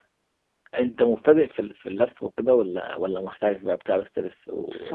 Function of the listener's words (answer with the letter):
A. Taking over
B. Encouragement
A